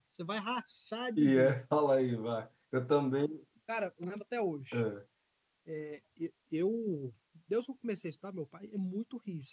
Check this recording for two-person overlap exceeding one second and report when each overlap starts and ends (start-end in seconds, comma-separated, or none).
none